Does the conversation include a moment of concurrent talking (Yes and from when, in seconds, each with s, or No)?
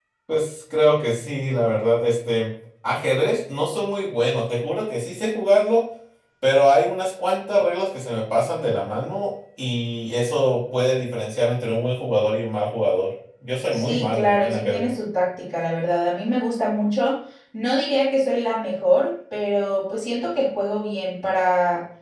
Yes, from 13.7 s